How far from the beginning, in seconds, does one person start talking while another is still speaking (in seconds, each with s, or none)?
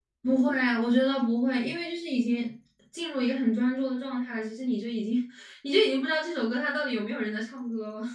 none